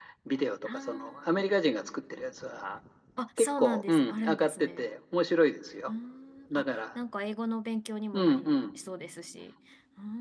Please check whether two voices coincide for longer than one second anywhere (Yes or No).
Yes